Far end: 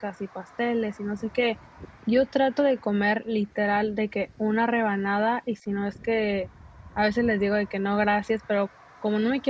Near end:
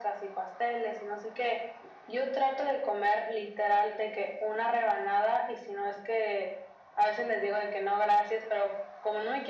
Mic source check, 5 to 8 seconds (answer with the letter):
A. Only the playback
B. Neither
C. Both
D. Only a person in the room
A